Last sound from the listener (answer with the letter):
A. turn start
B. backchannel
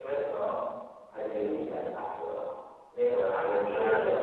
B